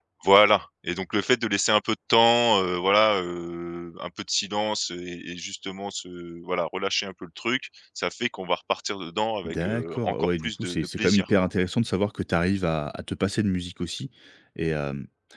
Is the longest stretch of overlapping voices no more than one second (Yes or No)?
No